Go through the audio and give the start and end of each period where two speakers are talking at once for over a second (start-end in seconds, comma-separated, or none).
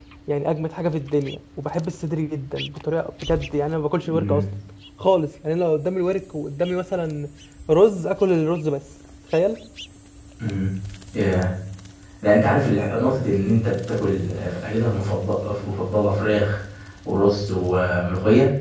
none